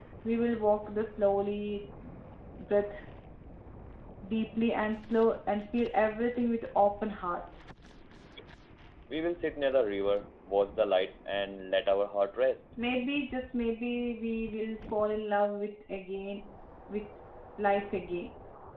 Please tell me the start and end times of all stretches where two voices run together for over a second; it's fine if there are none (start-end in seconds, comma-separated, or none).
none